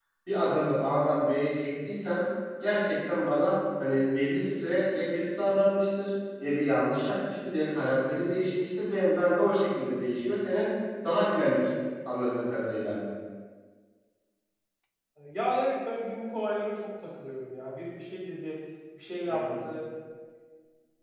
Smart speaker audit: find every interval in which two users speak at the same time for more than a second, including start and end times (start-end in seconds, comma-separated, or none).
none